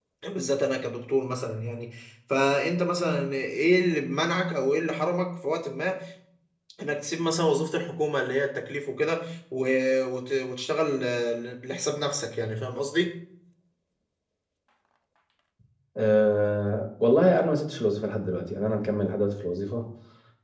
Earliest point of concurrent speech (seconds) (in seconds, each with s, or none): none